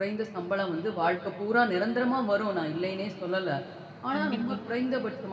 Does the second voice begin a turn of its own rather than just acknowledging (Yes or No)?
No